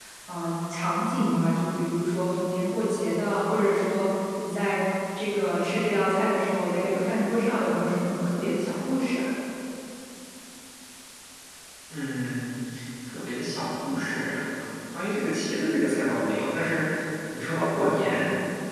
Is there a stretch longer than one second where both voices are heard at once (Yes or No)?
No